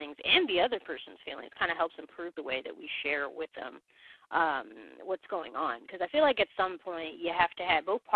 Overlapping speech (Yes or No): No